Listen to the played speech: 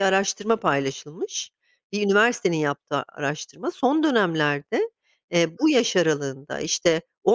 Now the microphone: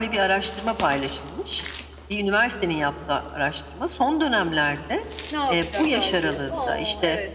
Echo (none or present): present